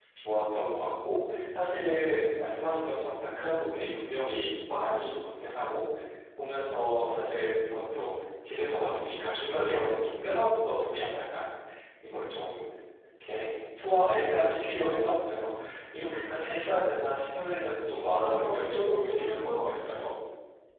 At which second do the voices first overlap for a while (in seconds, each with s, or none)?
18.2 s